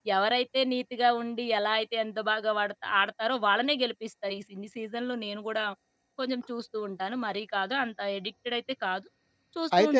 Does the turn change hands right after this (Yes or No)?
No